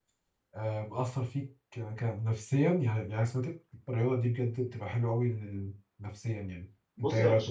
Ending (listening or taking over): taking over